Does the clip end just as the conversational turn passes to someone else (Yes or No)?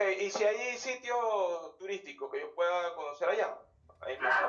Yes